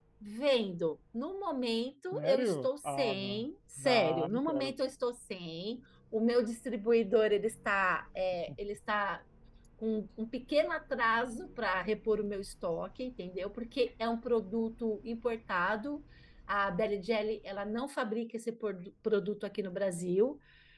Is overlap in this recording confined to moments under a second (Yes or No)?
No